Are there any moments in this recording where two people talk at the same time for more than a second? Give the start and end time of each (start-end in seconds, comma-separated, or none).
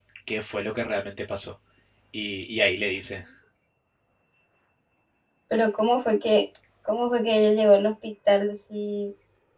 none